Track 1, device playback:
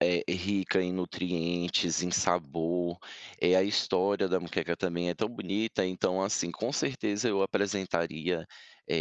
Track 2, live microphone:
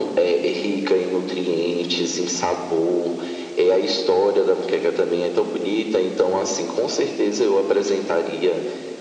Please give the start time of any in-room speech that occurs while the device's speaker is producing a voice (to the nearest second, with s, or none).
none